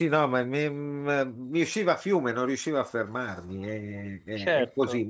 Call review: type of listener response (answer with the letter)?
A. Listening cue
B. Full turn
A